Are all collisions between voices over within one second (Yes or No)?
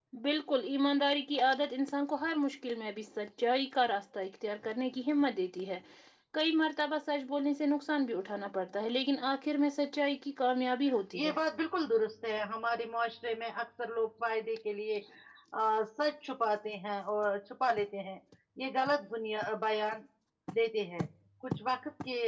Yes